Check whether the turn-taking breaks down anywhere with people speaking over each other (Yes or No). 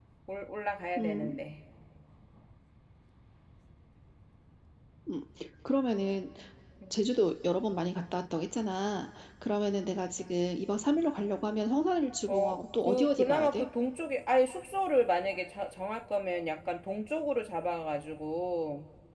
Yes